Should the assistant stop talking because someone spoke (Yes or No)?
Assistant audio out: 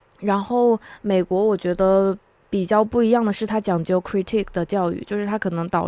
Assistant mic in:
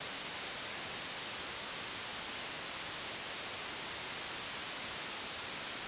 No